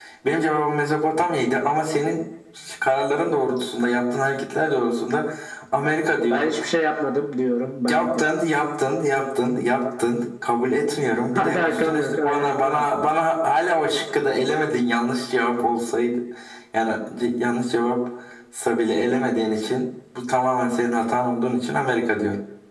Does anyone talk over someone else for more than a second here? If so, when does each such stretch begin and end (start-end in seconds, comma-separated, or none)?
11.4-12.8